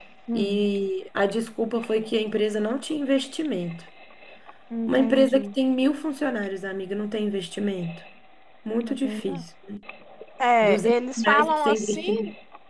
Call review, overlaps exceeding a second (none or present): present